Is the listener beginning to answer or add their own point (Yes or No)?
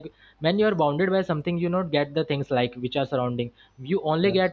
No